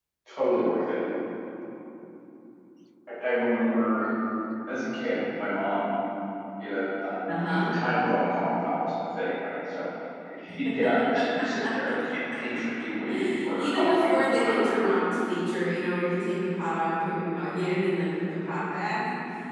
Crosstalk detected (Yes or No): Yes